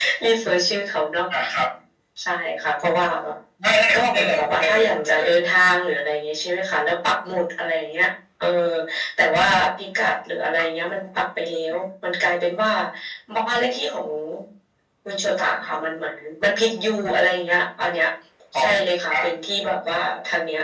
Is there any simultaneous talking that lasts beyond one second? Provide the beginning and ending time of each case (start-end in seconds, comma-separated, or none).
3.9-5.3